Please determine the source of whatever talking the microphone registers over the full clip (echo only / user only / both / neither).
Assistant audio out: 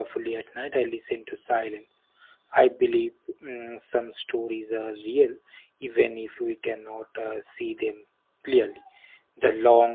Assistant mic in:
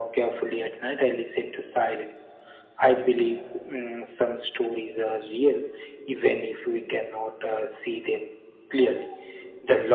echo only